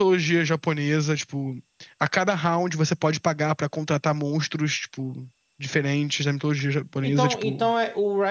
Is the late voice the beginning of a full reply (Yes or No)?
Yes